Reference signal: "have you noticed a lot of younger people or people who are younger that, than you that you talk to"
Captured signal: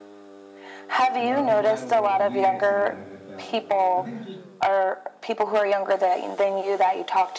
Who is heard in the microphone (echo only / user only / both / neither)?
both